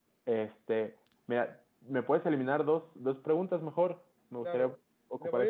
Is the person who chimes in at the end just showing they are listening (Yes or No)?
No